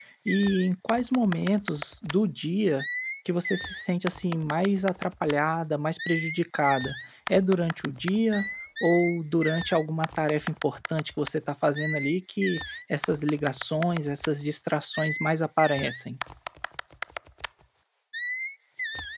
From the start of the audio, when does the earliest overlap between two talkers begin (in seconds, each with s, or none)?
none